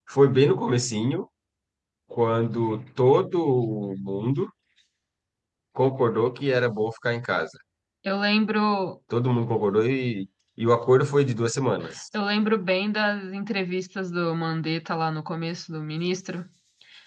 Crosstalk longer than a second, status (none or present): none